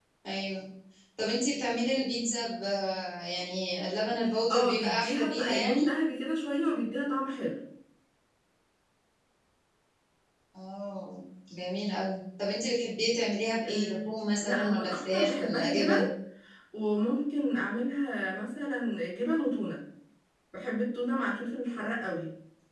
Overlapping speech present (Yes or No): Yes